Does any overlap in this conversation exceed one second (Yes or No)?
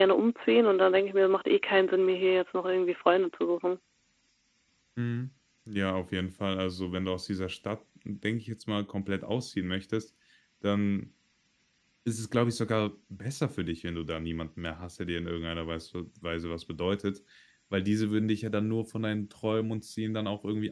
No